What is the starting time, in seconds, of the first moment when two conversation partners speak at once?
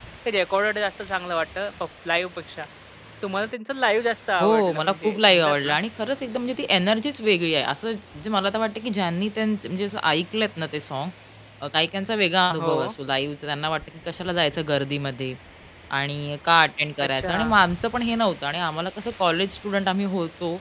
4 s

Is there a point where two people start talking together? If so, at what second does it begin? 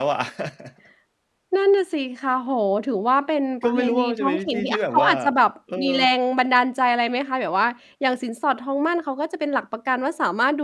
4 s

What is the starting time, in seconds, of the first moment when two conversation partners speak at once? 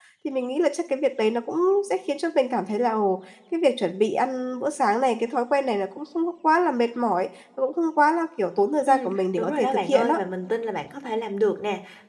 9 s

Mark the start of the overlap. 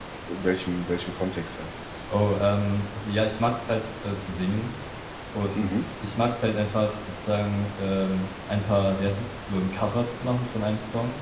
none

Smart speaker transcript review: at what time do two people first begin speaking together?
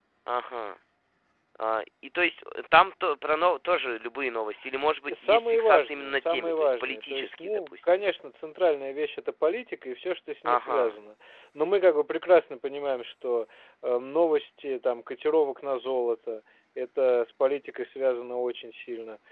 5 s

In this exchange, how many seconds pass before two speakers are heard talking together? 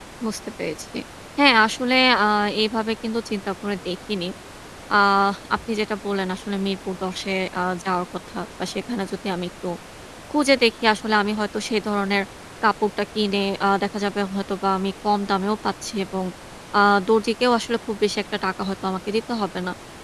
none

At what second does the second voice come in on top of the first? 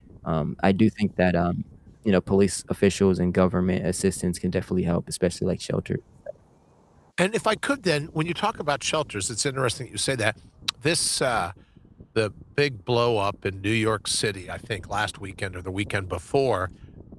none

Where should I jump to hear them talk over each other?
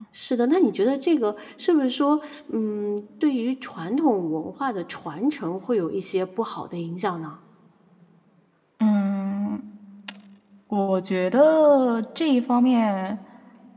none

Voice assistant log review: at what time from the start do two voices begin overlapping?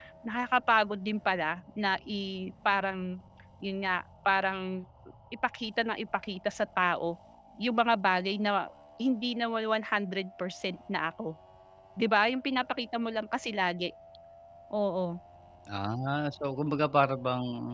none

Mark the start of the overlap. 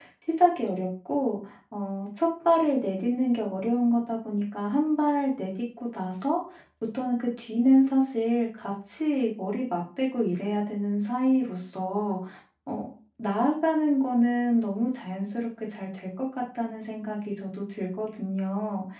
none

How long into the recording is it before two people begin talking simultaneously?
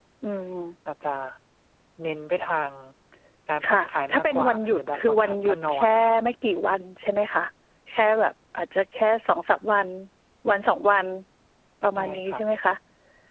4 s

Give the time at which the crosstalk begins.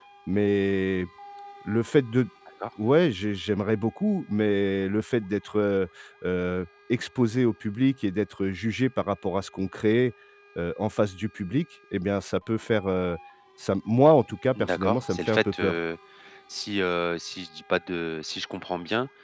15 s

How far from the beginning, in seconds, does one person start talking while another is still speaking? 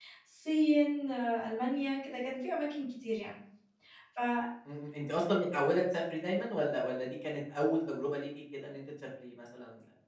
none

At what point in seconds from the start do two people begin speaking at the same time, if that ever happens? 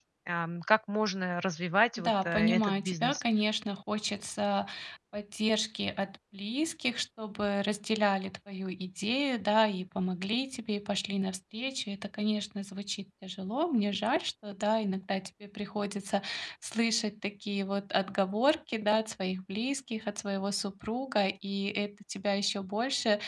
2 s

